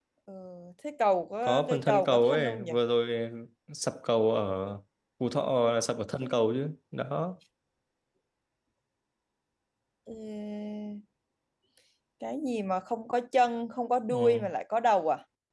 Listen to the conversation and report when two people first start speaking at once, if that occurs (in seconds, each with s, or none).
1.4 s